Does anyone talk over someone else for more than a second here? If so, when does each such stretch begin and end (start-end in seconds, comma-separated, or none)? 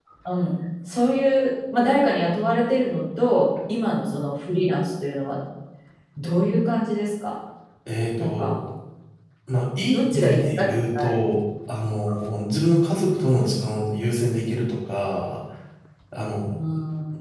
9.9-11.2